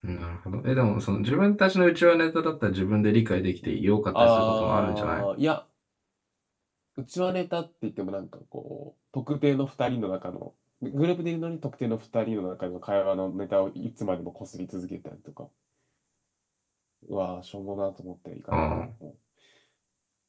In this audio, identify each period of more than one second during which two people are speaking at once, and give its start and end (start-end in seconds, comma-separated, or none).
3.6-5.2